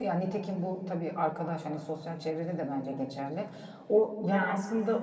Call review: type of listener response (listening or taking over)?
listening